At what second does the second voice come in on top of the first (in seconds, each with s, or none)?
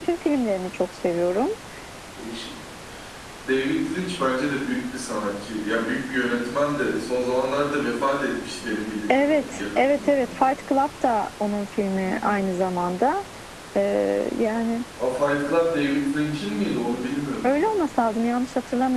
9.1 s